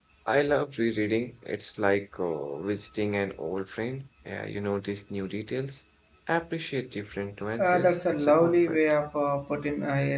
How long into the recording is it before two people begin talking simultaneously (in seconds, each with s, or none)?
7.6 s